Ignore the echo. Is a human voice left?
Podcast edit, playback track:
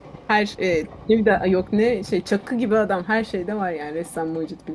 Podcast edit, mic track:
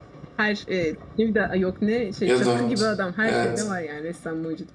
Yes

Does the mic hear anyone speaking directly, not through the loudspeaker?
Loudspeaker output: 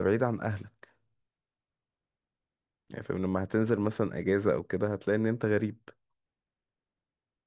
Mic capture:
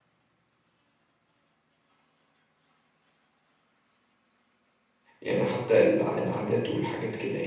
Yes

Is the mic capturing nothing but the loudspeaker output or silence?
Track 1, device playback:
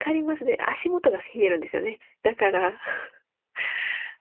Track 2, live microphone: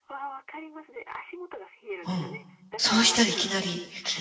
No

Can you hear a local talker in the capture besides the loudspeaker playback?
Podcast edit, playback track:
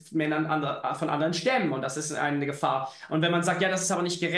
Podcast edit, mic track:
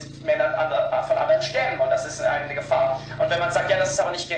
No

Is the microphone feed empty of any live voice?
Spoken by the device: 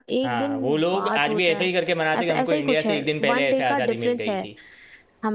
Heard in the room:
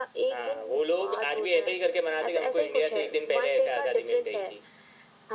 Yes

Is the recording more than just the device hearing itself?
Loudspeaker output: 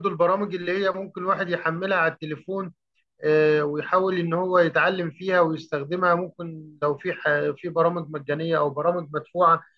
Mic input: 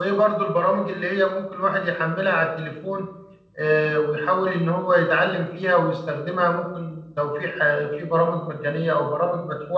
No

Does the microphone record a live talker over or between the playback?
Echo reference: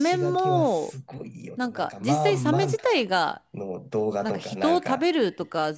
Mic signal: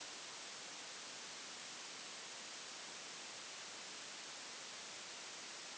No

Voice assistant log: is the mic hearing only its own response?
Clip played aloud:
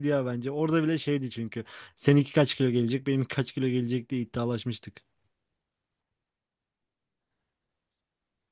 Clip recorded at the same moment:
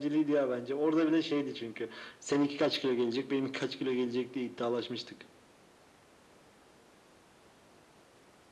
Yes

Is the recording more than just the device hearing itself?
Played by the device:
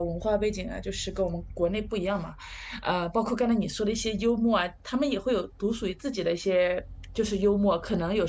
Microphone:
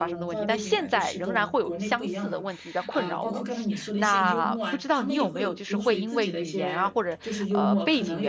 Yes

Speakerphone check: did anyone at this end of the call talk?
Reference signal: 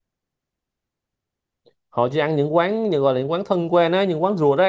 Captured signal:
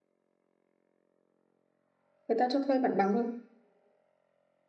Yes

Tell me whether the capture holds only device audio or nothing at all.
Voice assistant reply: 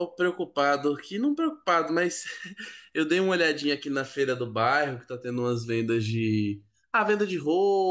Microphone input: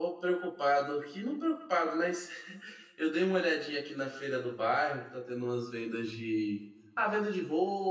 Yes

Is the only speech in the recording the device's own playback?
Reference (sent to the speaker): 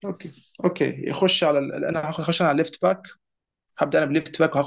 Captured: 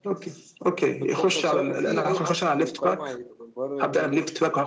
No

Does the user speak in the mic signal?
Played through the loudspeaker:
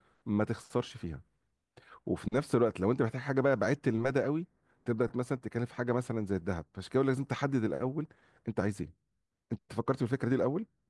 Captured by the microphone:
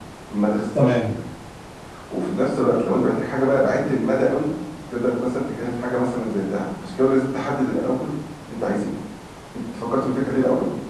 Yes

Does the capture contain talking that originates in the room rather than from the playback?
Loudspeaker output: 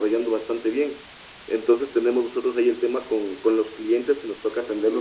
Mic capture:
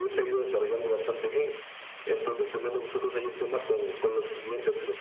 No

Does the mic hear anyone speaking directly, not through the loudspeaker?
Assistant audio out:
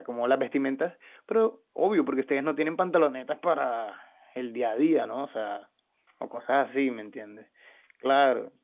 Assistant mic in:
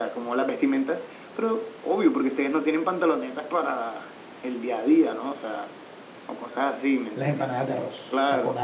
Yes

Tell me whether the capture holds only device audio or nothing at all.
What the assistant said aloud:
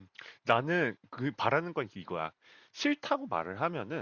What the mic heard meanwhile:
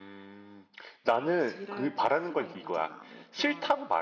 No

